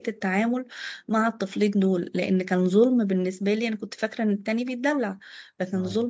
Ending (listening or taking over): listening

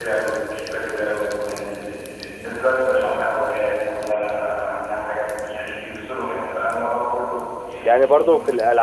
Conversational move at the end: taking over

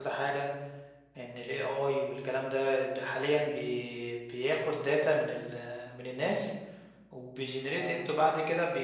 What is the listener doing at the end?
listening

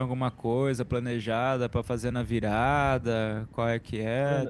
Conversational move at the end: taking over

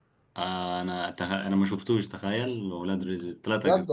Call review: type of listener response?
taking over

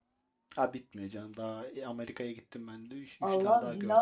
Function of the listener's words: taking over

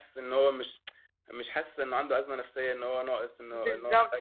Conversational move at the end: taking over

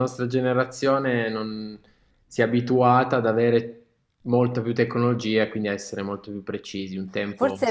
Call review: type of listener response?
taking over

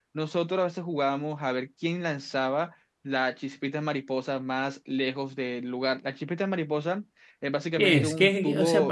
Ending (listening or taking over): taking over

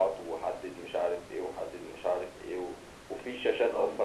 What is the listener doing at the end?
listening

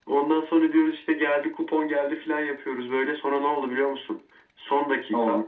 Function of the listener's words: listening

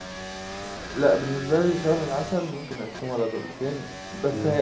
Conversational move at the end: listening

